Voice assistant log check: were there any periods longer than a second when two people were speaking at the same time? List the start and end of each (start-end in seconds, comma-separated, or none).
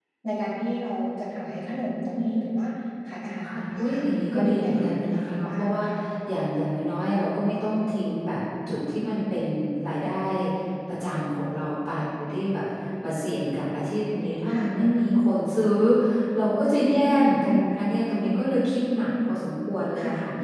4.4-5.8